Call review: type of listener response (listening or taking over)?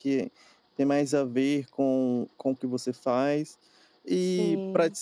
listening